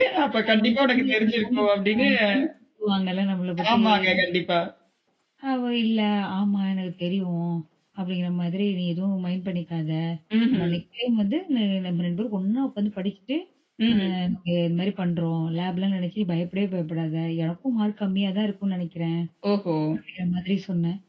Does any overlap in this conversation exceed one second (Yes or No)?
Yes